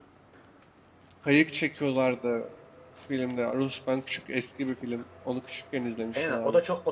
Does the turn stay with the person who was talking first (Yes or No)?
No